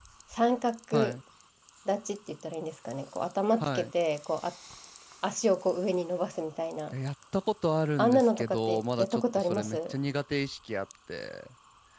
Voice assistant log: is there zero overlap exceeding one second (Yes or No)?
No